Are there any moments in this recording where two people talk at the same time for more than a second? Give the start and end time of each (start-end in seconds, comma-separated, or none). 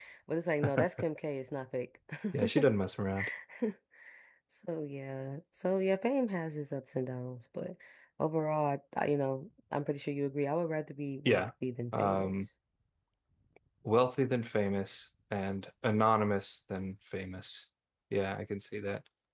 none